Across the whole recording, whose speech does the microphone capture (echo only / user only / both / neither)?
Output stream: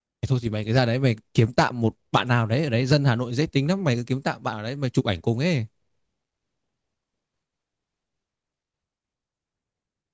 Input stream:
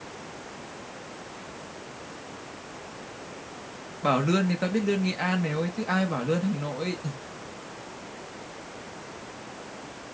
user only